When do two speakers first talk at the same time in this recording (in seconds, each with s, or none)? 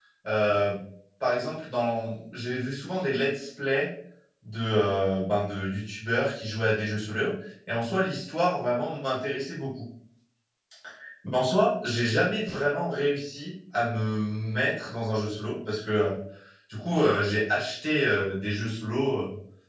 none